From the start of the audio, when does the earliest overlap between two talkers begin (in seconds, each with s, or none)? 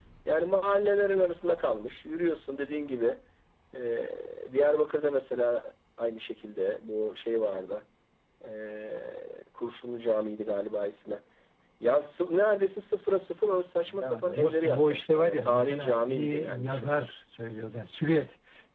13.9 s